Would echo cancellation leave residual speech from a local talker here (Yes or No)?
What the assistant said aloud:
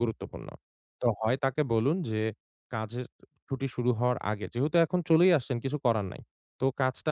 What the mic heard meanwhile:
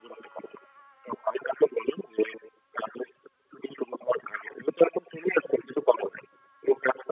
No